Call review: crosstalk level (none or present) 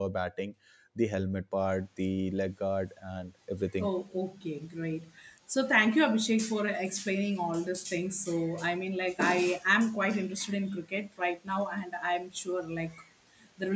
none